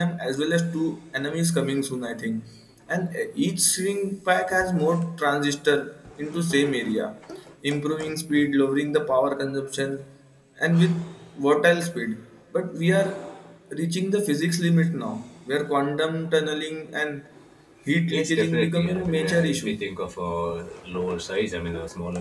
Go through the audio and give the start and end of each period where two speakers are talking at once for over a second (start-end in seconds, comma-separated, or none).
18.1-19.8